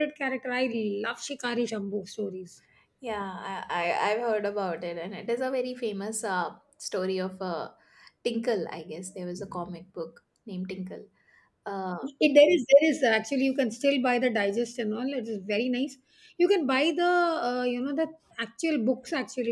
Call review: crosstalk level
none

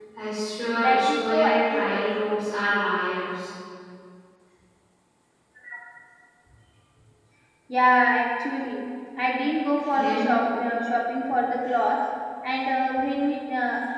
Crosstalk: present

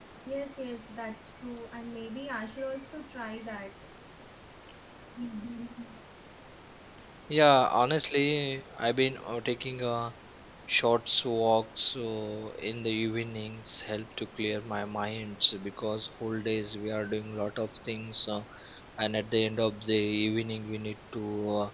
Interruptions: none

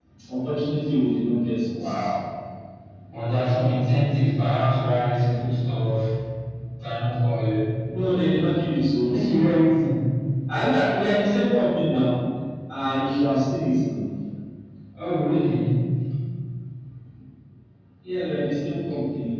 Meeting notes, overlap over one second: none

